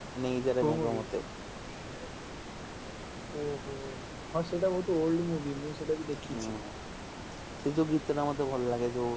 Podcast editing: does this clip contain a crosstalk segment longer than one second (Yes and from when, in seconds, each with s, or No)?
No